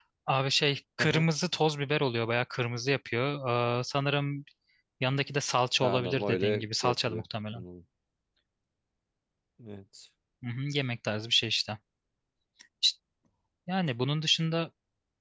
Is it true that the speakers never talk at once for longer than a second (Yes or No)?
No